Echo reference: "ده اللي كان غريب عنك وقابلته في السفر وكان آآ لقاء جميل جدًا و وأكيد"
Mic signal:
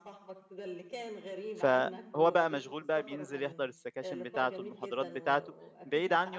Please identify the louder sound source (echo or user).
user